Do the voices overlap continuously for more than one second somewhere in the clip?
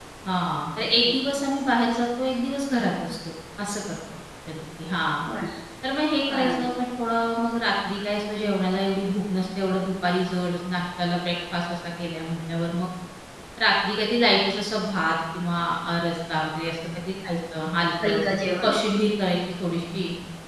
No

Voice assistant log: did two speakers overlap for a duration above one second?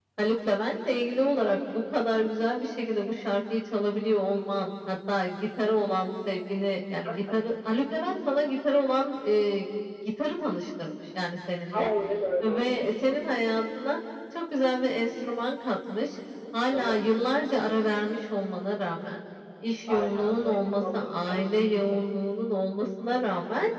Yes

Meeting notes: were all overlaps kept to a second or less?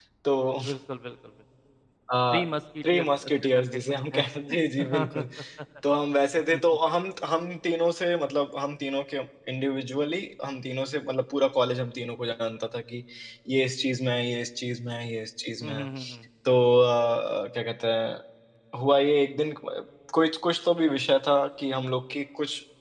No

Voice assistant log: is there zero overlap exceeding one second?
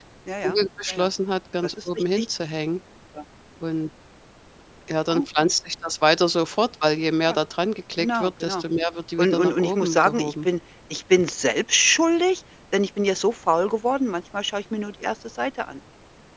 No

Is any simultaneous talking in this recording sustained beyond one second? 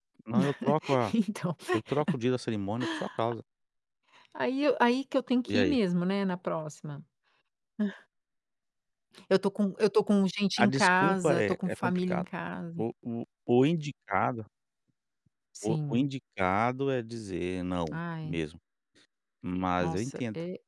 Yes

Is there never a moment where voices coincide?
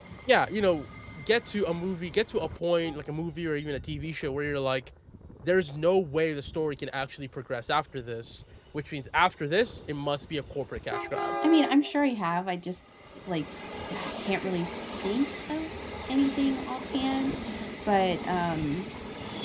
Yes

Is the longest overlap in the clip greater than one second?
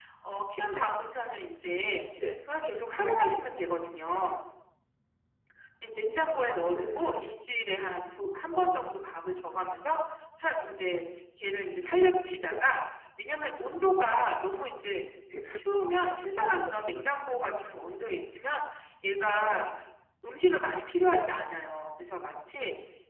No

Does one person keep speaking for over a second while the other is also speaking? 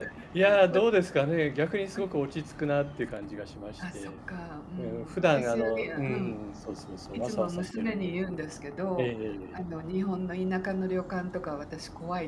Yes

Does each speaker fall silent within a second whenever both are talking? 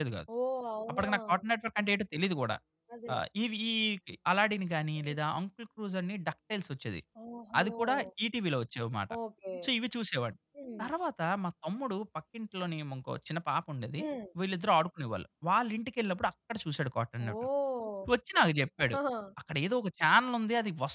Yes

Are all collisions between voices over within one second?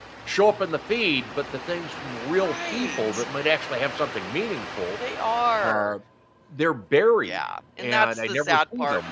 No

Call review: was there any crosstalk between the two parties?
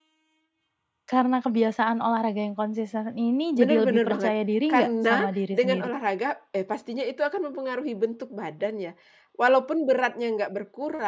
Yes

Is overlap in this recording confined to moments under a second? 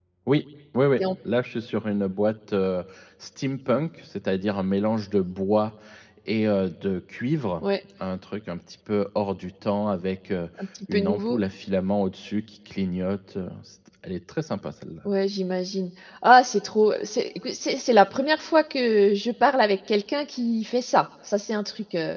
Yes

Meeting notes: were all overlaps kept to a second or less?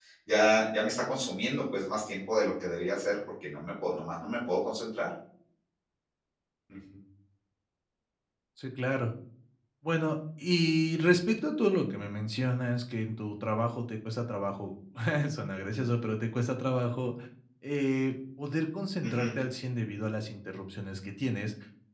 Yes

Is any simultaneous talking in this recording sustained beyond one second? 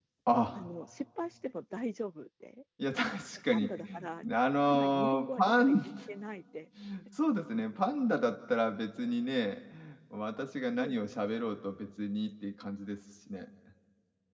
Yes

